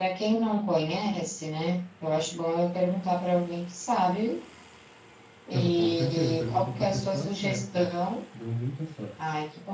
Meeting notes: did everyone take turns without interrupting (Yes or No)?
No